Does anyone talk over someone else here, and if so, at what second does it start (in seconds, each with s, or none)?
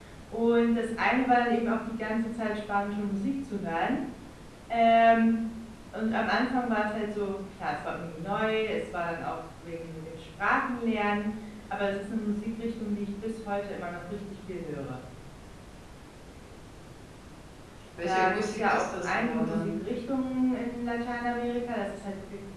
18.0 s